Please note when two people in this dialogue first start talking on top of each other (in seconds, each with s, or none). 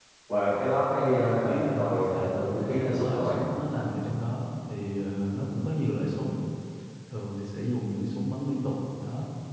0.9 s